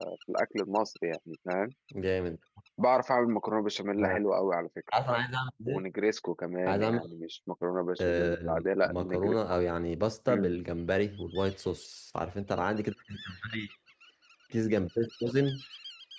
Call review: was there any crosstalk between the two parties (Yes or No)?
Yes